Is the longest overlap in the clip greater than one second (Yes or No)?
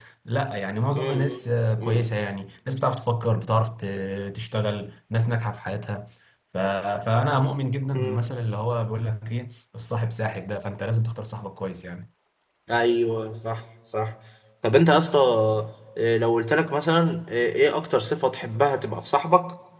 No